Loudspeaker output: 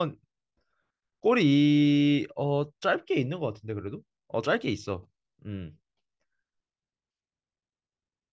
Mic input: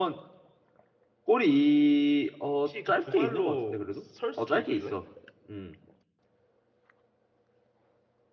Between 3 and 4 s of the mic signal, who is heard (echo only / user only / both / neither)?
both